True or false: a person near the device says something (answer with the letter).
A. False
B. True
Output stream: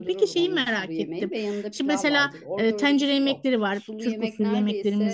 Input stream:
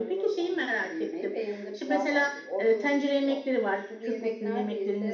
A